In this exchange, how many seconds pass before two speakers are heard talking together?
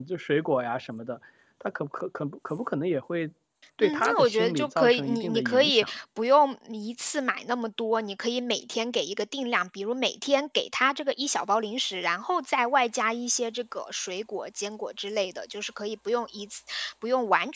4 s

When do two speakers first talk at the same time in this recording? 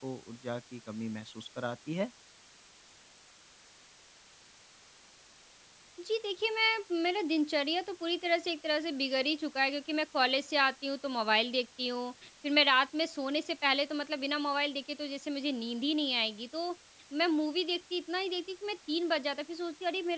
none

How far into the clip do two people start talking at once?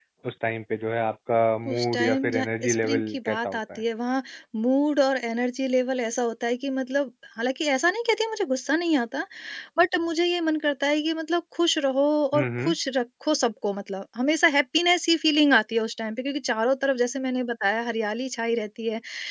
2 s

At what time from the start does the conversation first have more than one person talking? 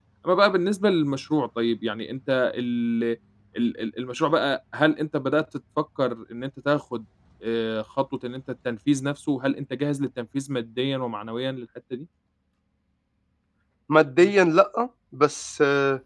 none

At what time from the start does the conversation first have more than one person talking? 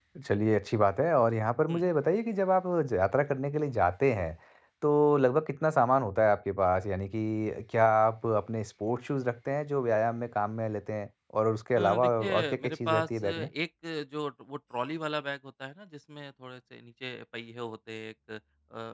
12 s

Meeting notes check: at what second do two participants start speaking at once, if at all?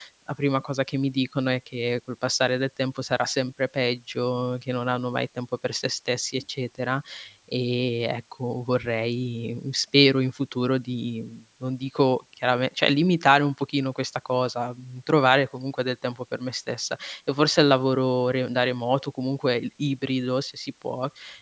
none

